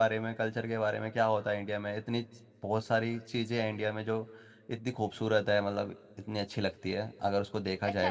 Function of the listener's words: taking over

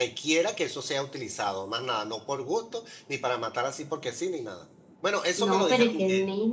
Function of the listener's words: taking over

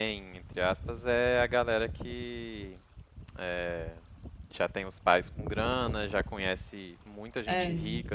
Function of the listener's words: listening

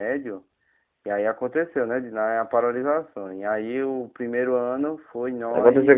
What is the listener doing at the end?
taking over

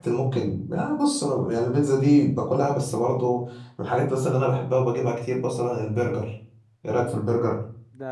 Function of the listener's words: taking over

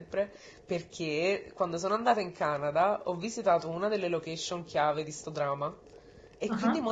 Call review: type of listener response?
listening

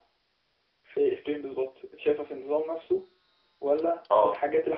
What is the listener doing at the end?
listening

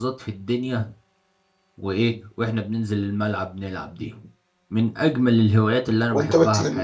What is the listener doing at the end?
taking over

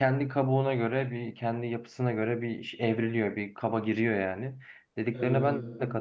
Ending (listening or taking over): listening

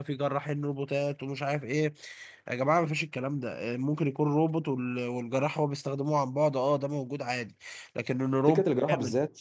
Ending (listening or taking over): taking over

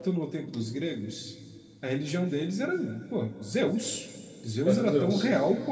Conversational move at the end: listening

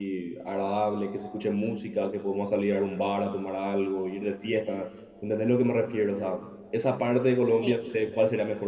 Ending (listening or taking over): listening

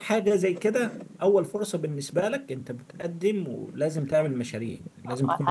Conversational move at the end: taking over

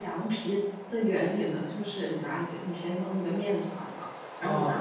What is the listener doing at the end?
listening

